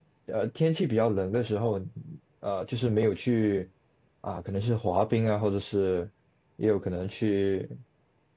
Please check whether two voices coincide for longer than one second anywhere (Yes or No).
No